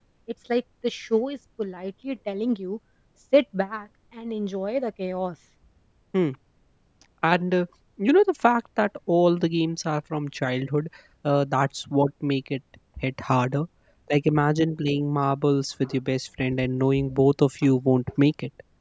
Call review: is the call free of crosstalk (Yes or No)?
Yes